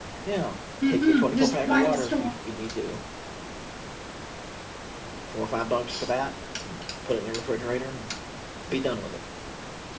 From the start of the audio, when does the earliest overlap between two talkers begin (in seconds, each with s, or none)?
0.9 s